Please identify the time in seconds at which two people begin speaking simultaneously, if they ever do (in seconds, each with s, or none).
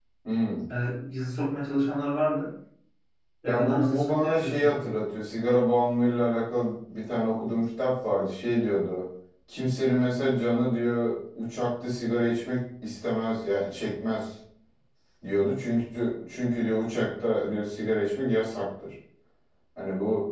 3.5 s